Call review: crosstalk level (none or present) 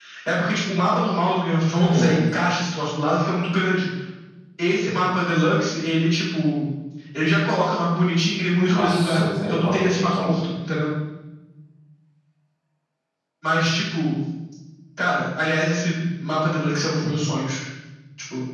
present